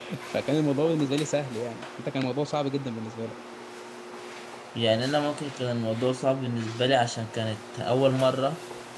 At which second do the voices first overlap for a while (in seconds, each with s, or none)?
none